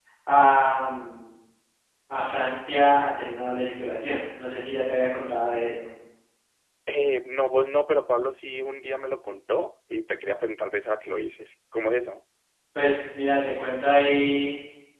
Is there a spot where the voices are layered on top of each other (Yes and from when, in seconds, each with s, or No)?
No